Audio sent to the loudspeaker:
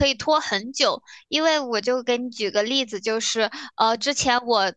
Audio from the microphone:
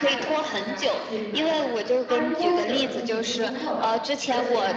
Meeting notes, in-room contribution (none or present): present